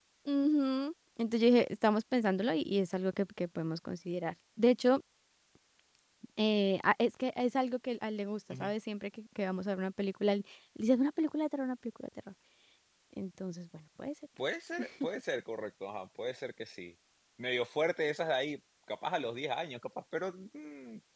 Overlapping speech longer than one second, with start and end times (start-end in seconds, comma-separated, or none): none